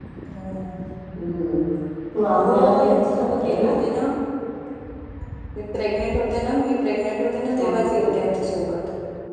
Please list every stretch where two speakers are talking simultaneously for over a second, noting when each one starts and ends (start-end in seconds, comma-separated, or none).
2.4-3.7